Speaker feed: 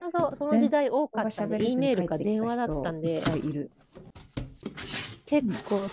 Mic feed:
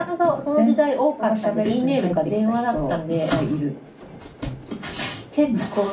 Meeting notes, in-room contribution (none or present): none